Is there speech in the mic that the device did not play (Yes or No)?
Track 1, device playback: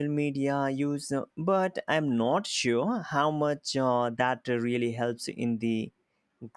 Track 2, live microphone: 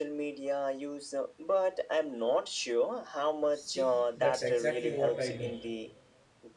Yes